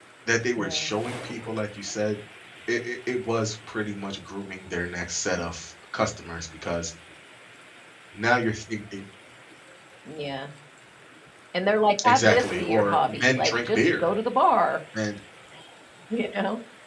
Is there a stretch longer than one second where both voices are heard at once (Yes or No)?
Yes